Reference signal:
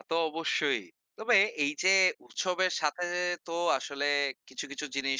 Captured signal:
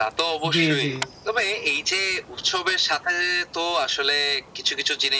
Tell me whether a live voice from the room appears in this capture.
Yes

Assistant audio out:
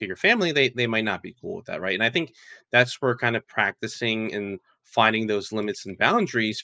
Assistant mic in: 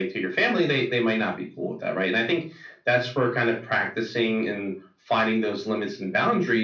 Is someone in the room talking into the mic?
No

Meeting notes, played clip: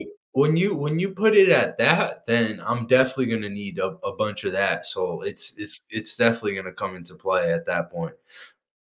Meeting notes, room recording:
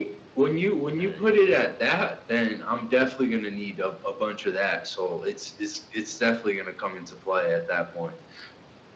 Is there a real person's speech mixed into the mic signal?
Yes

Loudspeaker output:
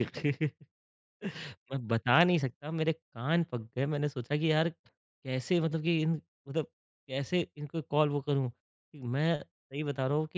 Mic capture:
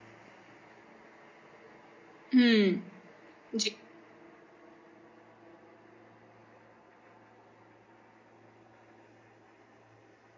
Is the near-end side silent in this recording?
No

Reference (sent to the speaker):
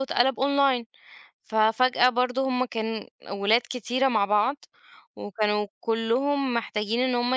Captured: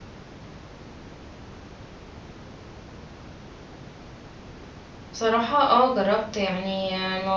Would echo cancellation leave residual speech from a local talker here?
Yes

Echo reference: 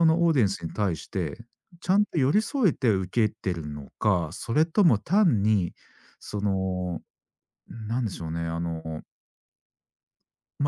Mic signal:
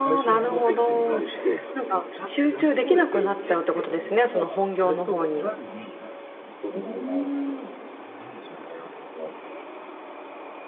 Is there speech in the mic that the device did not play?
Yes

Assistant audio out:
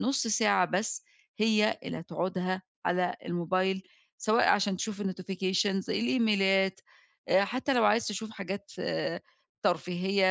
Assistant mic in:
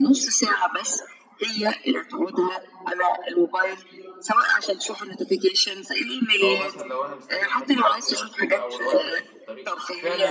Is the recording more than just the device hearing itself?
Yes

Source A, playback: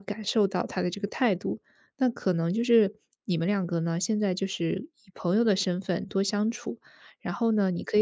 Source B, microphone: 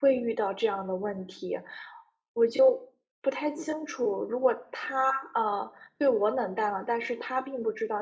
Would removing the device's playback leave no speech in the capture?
No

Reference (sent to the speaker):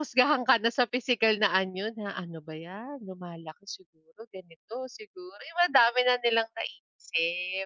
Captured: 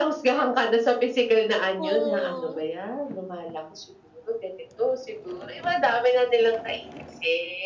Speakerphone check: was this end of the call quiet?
No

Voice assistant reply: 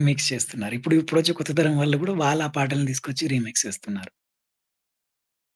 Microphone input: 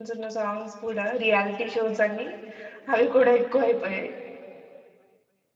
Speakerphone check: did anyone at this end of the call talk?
Yes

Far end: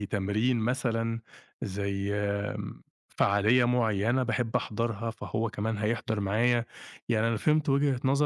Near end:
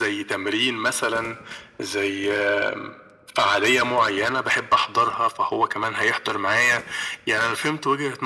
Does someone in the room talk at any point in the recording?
No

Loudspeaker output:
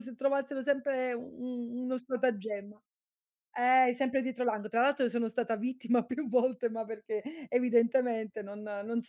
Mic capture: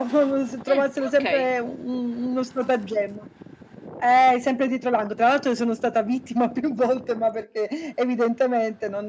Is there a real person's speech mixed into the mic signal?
Yes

